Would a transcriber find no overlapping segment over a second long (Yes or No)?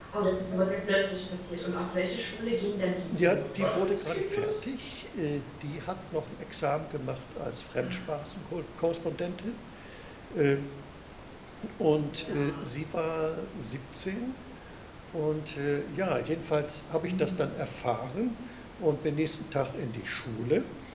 No